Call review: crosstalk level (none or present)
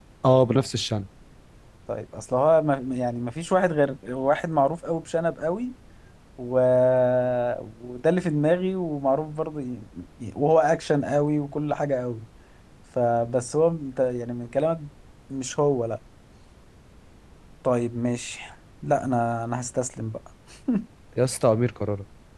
none